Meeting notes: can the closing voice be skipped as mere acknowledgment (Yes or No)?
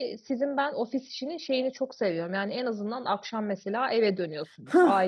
No